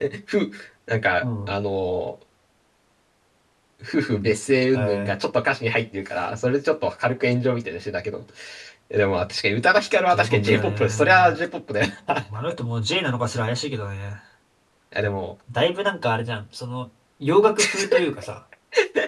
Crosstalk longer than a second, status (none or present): present